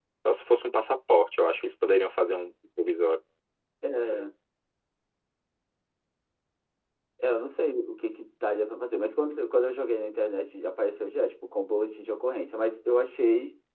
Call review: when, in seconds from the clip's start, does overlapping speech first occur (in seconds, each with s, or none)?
none